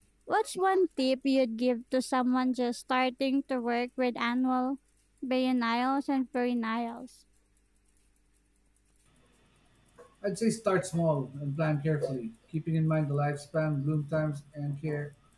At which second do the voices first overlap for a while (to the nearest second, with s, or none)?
none